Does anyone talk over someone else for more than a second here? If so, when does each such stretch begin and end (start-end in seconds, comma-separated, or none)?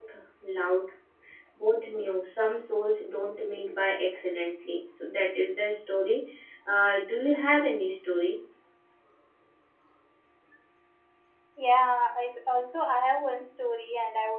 none